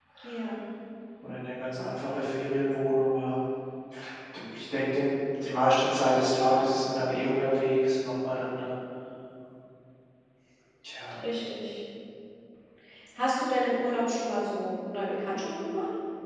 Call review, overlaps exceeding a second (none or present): none